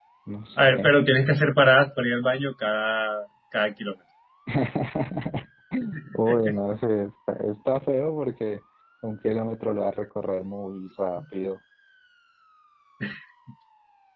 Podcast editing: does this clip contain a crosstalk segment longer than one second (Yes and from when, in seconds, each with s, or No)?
No